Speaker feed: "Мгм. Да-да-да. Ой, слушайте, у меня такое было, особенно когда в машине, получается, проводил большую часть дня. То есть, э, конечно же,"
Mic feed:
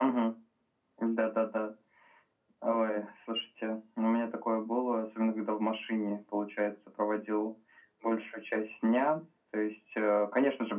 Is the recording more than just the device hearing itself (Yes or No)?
No